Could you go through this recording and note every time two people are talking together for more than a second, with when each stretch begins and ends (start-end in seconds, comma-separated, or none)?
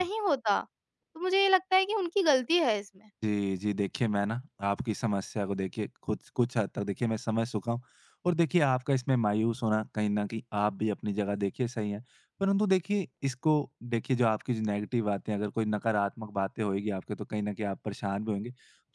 none